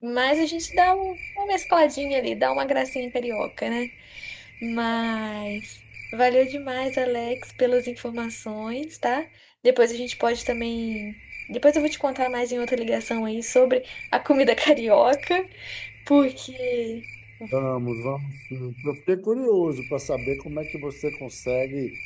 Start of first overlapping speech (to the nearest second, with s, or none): none